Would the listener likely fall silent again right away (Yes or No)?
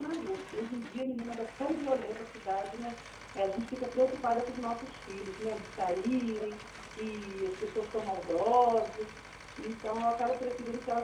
Yes